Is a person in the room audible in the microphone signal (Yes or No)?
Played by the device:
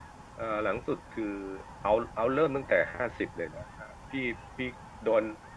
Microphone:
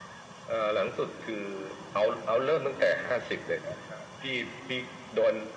No